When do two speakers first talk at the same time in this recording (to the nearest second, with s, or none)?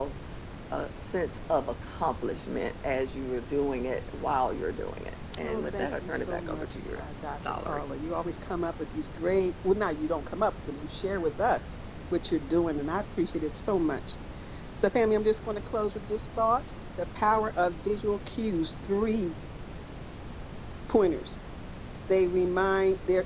5 s